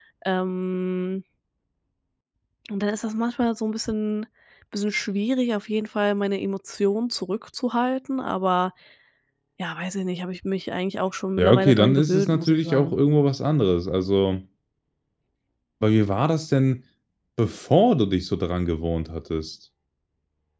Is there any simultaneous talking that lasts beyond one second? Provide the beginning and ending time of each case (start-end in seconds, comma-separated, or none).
11.4-13.0